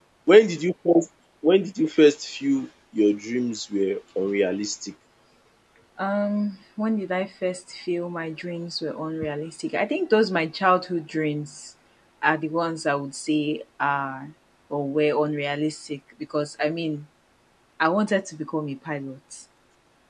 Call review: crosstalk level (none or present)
none